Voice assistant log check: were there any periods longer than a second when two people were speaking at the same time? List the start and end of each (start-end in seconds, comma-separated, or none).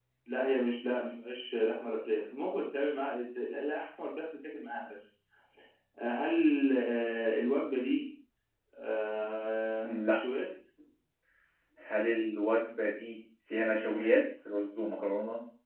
none